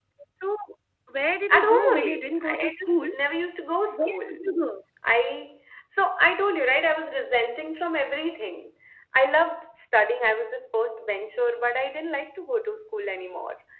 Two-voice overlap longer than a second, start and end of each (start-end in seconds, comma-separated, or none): 1.5-3.1